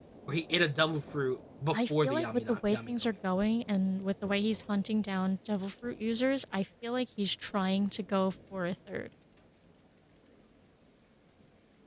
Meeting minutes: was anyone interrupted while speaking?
Yes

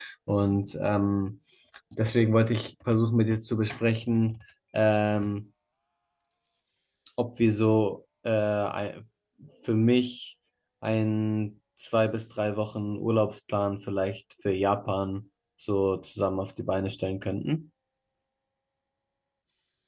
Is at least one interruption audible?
No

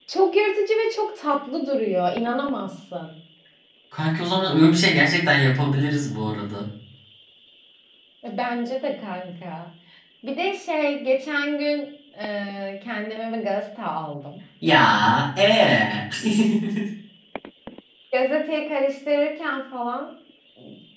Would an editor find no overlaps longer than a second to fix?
Yes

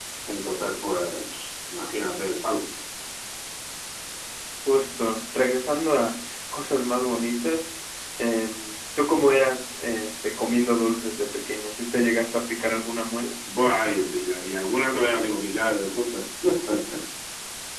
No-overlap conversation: Yes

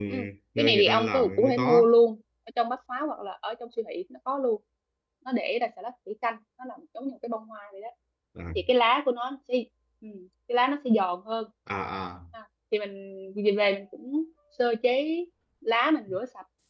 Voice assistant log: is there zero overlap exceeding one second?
No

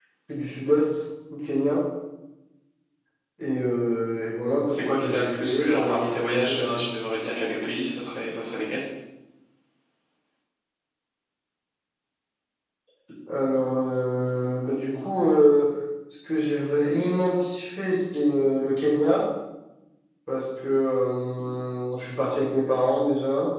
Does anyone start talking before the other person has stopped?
Yes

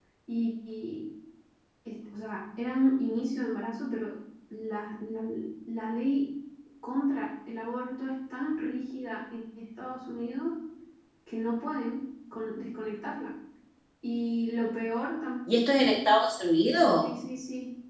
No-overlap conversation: Yes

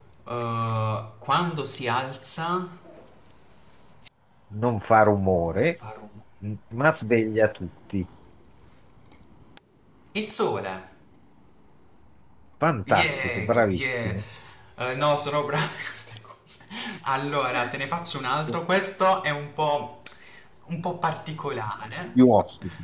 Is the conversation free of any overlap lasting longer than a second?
No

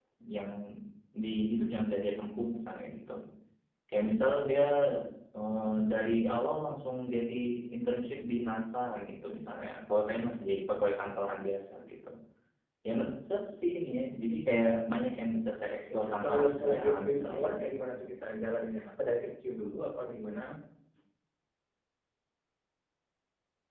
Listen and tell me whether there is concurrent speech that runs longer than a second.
Yes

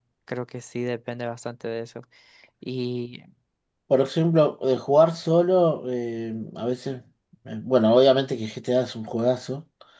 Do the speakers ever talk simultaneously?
No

